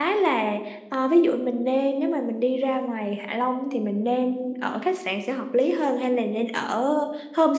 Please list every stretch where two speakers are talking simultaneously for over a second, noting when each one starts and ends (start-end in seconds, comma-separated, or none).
none